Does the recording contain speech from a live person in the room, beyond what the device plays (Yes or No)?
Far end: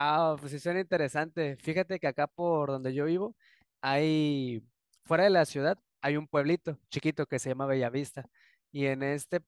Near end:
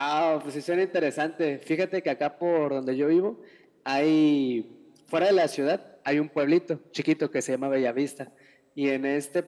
No